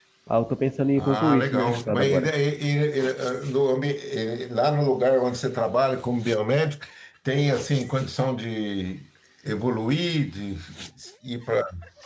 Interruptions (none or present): present